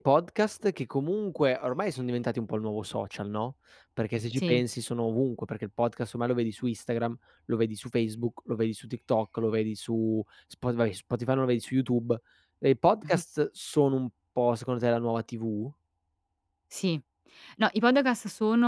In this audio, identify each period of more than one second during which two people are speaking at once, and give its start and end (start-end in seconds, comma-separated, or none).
none